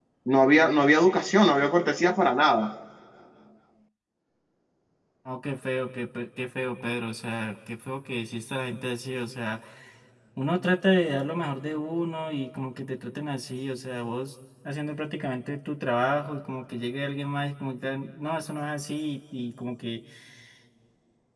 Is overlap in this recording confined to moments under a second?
Yes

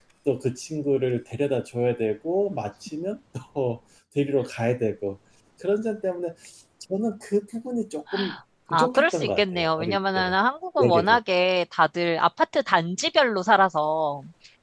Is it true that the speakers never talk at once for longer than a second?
No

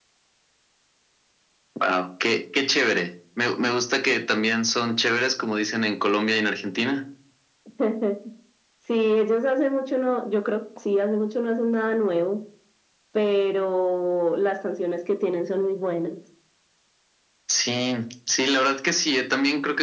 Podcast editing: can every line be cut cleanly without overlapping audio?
Yes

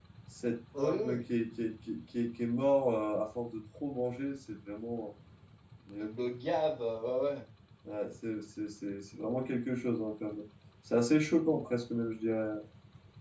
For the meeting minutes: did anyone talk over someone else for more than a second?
No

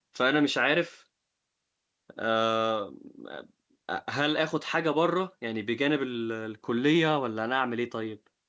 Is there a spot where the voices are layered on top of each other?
No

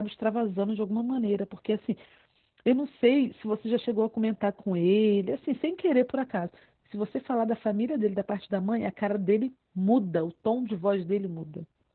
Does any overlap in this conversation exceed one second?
No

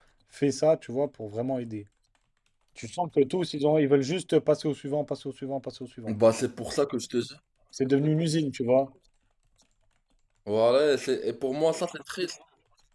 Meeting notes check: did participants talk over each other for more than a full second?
No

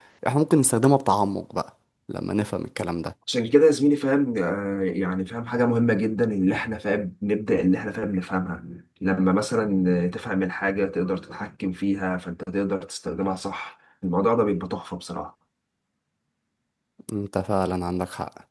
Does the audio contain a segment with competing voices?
No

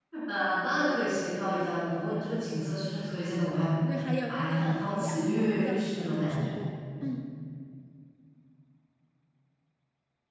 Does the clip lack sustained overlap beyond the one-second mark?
No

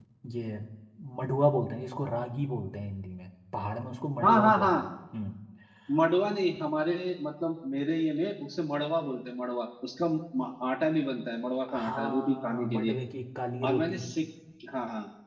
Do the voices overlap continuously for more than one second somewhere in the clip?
Yes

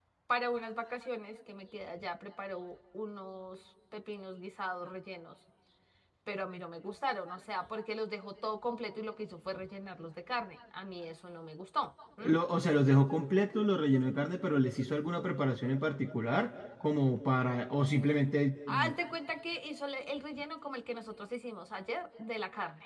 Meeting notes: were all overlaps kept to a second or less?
Yes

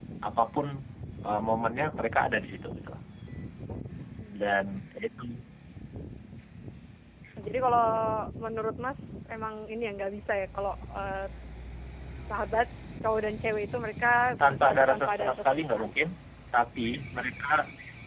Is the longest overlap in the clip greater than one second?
Yes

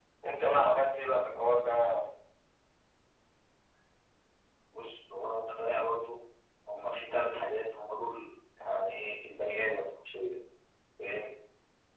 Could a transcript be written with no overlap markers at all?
Yes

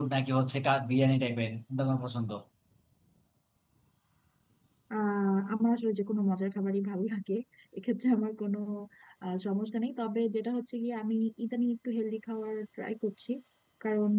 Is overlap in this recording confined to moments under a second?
Yes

